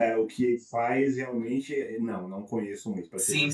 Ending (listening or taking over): taking over